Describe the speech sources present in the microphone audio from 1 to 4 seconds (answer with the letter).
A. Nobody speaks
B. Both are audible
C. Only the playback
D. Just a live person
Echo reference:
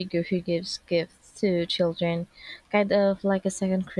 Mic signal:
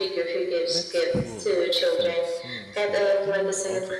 B